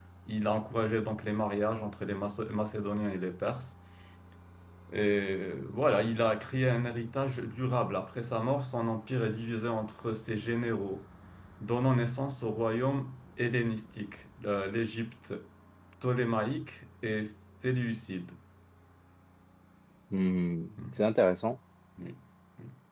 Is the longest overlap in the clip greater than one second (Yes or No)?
No